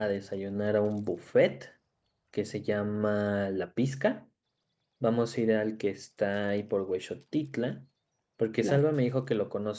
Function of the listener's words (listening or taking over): listening